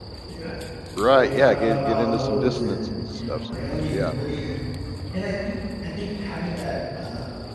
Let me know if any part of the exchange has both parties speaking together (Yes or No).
Yes